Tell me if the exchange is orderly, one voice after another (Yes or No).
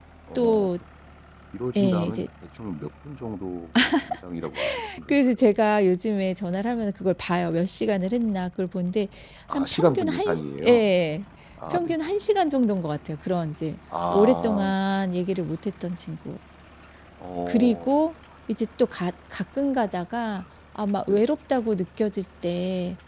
No